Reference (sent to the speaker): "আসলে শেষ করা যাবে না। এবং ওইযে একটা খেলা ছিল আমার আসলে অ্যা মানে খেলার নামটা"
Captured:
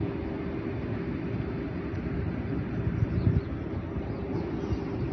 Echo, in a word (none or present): none